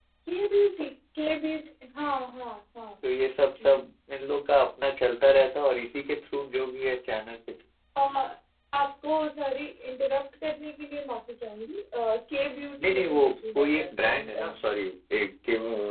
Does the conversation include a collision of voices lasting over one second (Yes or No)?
Yes